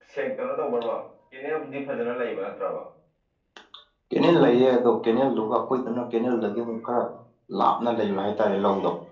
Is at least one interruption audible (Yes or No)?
No